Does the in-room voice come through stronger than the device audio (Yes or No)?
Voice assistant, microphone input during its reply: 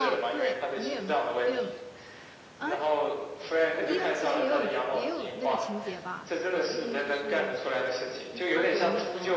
No